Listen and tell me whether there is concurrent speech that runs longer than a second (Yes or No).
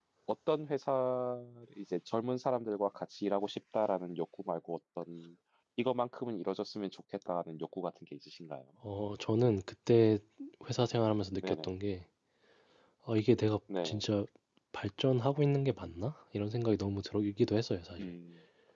No